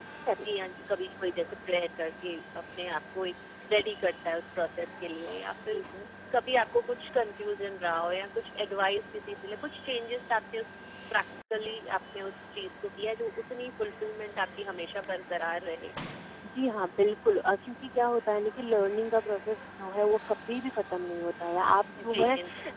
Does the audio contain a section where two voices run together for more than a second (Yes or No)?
No